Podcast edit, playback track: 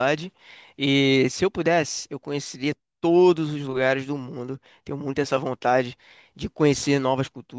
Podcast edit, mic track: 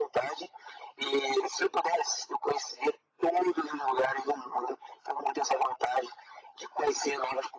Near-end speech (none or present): none